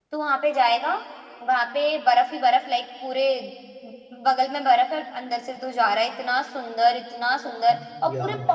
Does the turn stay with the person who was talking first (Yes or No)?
Yes